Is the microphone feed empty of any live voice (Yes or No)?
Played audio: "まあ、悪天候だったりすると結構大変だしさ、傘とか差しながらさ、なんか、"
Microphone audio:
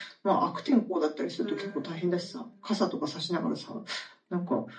No